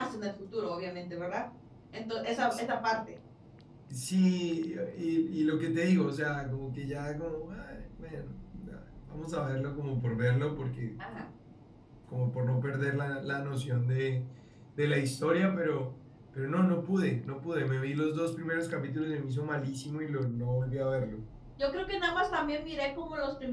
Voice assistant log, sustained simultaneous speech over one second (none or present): none